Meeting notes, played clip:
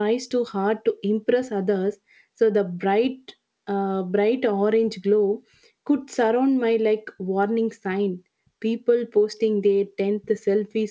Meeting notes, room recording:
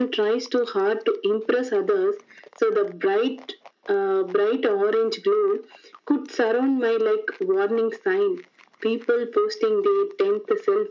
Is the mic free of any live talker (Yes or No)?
Yes